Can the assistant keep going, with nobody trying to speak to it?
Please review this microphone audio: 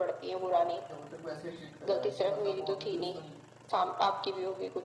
No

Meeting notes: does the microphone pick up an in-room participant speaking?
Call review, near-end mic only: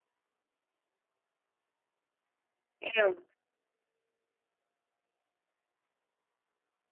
Yes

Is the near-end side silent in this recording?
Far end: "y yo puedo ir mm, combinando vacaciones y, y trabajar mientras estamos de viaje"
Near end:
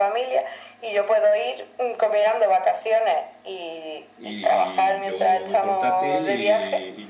No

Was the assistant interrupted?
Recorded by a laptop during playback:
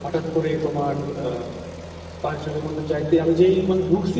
No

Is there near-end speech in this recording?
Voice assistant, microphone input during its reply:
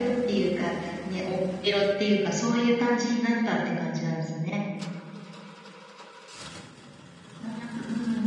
No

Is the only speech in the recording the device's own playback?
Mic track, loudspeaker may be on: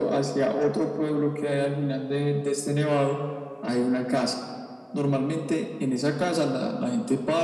Yes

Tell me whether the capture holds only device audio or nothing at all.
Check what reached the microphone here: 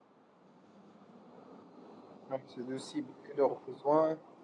No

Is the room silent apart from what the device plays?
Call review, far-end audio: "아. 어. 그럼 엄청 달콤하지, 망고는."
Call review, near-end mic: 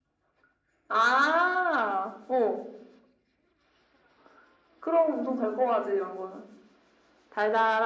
Yes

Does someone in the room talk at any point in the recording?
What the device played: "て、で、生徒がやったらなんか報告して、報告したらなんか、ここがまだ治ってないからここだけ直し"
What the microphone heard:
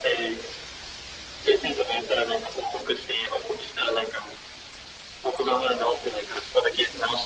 No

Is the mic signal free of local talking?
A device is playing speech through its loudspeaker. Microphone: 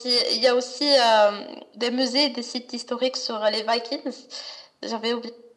Yes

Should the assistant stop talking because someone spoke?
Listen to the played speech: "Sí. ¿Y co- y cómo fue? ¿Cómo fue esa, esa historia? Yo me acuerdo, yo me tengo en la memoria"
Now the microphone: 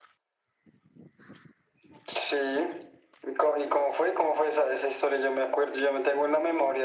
No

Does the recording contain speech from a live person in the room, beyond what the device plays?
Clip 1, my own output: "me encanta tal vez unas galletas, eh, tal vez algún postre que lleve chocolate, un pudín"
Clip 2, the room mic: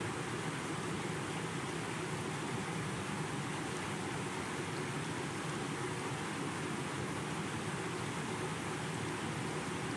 No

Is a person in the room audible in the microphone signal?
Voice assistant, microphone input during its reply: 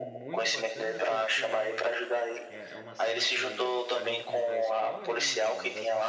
Yes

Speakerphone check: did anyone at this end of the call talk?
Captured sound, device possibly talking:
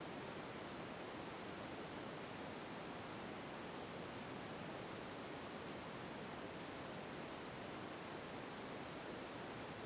No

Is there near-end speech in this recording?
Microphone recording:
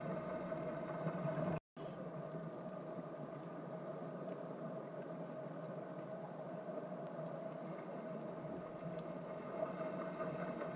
No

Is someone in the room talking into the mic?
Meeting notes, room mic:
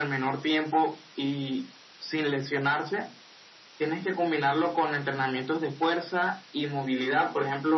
No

